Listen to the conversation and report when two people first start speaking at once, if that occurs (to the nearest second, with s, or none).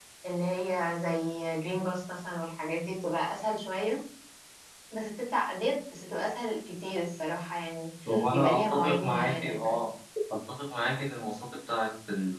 8 s